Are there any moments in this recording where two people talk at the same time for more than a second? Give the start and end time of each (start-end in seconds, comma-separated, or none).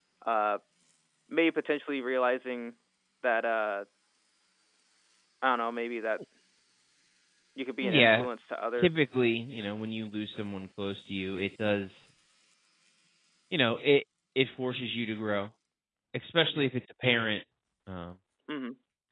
none